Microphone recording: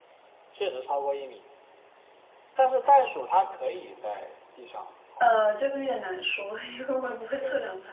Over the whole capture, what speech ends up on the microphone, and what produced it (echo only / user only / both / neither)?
both